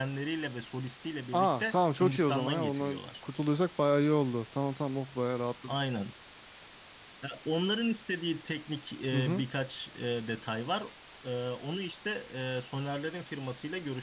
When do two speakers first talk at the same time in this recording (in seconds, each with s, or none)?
1.3 s